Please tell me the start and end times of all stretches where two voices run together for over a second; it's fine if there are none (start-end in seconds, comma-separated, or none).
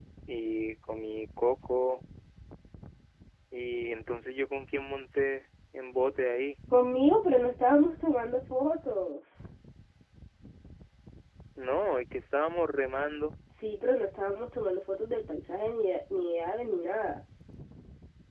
none